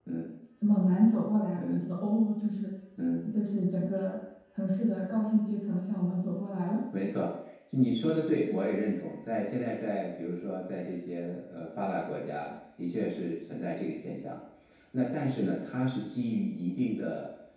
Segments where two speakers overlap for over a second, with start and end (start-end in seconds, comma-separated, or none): none